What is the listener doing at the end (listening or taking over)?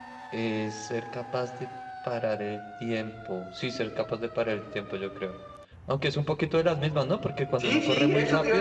taking over